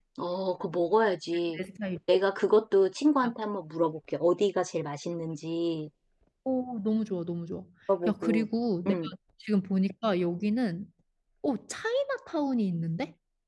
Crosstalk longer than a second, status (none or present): none